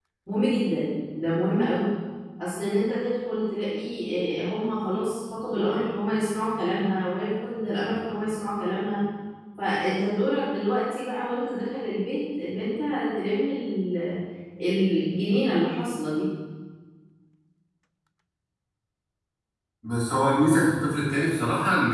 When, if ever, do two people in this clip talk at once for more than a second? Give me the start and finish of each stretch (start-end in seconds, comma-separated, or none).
none